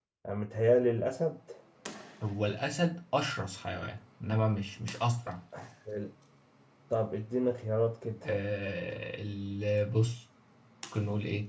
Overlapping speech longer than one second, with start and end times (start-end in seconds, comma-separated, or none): none